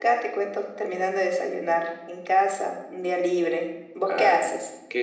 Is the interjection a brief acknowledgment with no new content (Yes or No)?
No